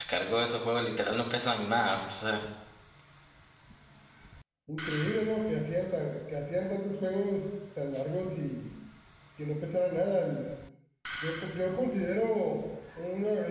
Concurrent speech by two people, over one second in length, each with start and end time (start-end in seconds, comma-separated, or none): none